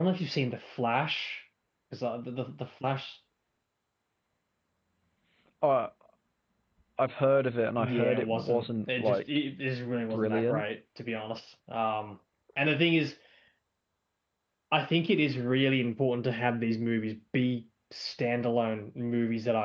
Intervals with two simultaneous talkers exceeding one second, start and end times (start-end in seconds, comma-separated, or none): 7.8-9.2